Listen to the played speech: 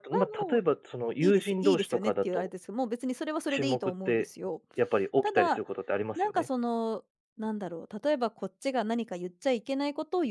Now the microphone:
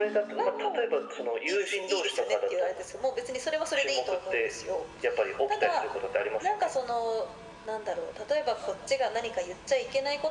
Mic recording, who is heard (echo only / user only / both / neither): echo only